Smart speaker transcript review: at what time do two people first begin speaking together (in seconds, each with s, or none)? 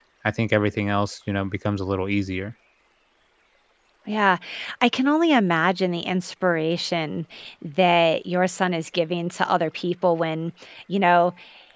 none